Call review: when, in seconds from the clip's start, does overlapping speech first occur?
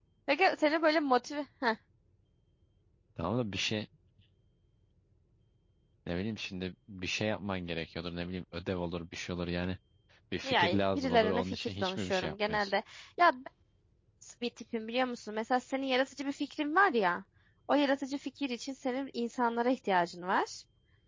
10 s

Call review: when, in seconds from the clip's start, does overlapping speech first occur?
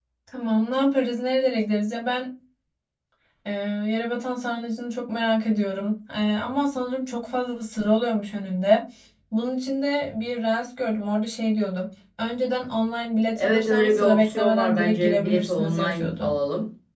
13 s

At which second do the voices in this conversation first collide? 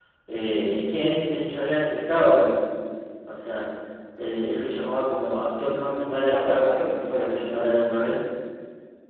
6 s

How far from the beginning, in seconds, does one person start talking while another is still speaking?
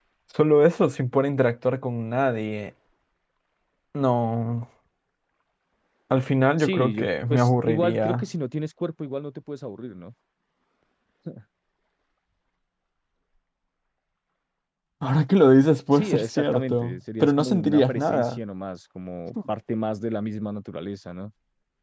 7 s

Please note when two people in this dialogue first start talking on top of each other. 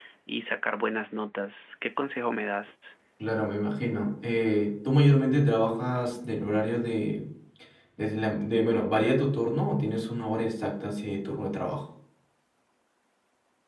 none

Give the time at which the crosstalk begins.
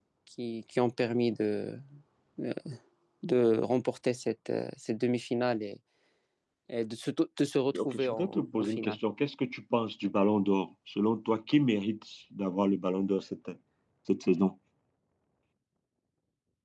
8 s

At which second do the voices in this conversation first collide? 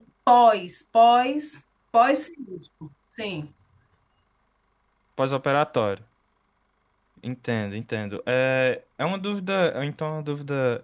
none

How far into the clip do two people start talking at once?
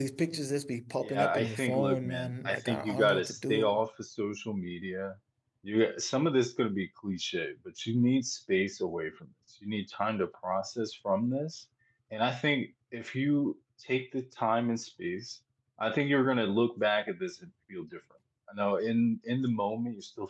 1 s

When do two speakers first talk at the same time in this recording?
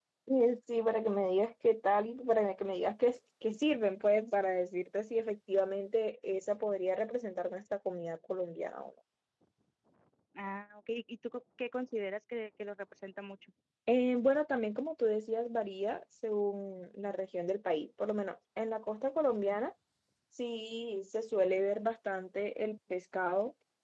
none

